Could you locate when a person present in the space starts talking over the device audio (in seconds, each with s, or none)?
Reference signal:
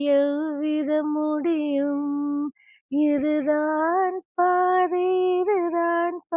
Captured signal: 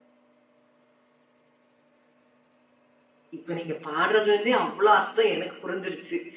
3.4 s